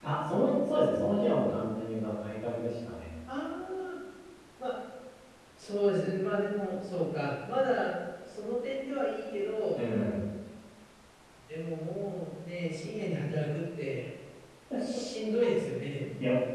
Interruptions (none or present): none